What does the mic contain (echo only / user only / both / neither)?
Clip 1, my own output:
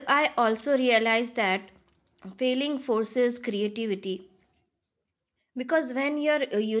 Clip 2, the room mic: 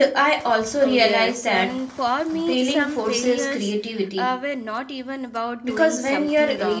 both